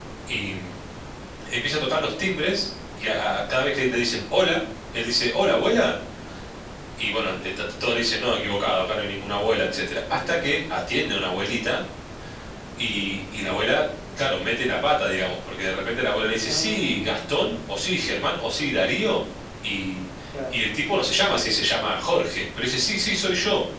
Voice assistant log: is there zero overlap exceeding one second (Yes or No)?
No